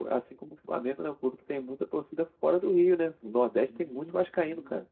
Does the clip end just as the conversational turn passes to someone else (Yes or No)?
Yes